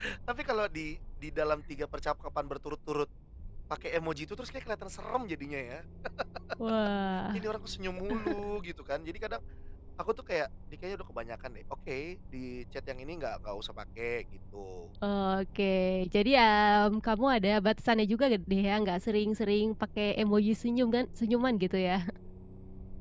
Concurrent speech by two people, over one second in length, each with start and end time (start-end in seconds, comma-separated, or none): none